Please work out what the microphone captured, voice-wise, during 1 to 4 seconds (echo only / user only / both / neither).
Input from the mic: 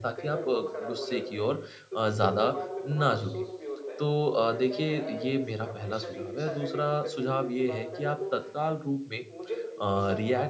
both